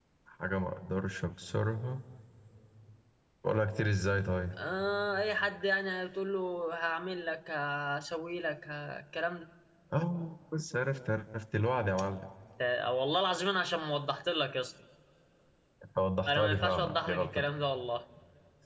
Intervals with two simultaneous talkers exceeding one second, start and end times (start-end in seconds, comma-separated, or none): 16.3-17.5